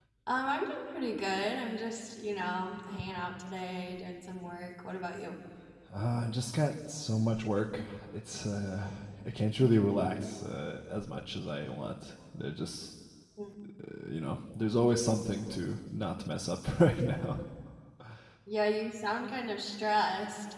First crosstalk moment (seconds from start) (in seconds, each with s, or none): none